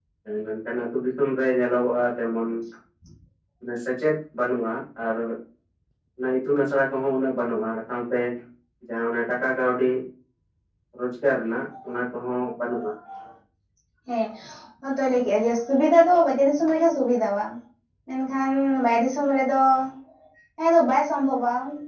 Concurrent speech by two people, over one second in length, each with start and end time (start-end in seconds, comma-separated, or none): none